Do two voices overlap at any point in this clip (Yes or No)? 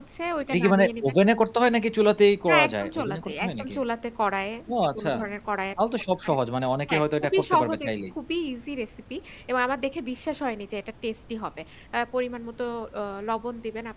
Yes